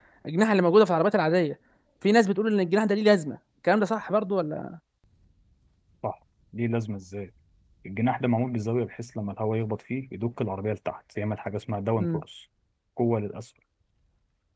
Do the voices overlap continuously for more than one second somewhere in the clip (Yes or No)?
No